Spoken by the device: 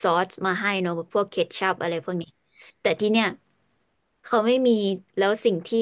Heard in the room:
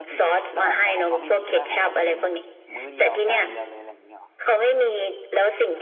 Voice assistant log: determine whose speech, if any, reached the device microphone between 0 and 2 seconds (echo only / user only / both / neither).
both